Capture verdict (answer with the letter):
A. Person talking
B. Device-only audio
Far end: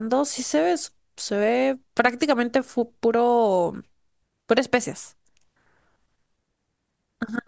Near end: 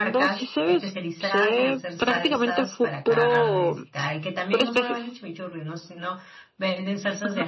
A